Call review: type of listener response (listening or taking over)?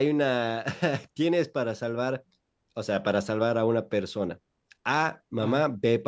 listening